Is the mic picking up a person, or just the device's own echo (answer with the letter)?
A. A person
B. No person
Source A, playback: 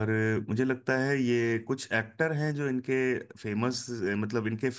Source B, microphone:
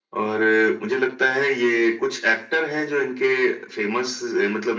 B